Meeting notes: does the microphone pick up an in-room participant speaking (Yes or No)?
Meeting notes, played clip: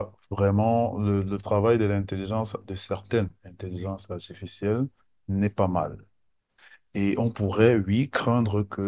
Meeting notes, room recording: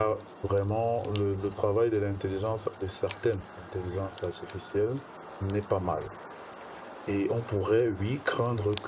No